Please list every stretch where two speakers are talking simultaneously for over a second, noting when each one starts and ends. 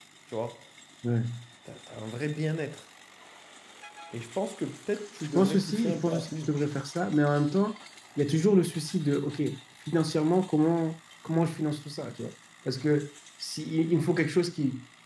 5.2-6.6

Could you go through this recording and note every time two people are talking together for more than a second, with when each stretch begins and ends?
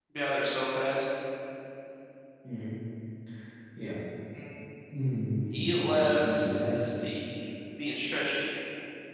5.5-6.8

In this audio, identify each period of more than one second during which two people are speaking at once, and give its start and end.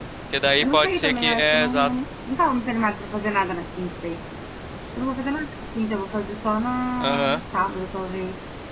0.6-1.9

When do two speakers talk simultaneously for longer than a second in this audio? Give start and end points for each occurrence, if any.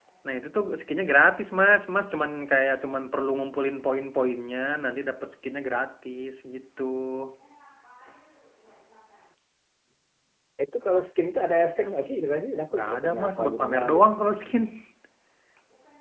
12.7-14.1

